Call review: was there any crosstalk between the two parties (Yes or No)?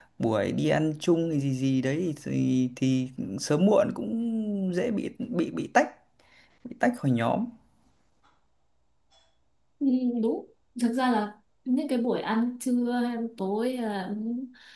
No